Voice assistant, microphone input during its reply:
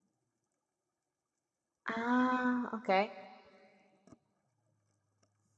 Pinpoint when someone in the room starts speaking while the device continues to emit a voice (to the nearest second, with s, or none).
2 s